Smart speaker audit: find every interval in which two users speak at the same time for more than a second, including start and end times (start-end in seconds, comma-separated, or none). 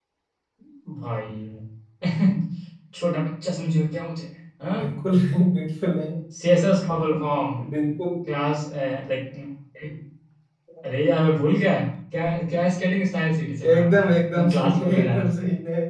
13.7-15.4